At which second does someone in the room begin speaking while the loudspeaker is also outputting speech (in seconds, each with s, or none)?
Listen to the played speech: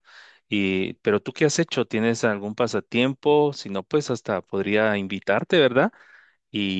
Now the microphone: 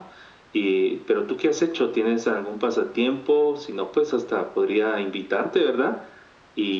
none